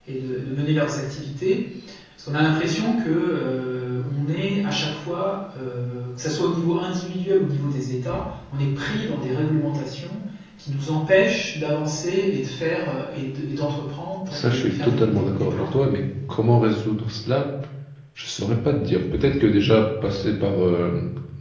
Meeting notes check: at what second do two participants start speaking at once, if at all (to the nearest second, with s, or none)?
14 s